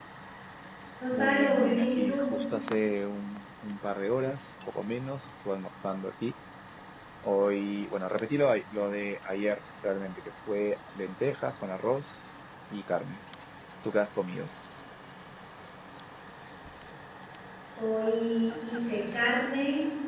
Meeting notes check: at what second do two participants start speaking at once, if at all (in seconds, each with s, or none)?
1.1 s